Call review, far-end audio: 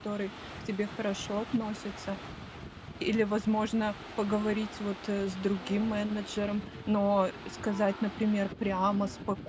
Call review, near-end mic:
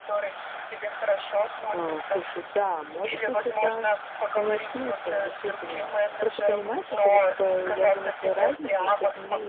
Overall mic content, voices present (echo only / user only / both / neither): both